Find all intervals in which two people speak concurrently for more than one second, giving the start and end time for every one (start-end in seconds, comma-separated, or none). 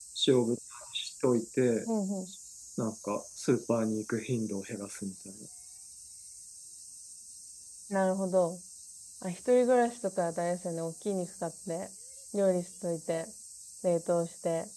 none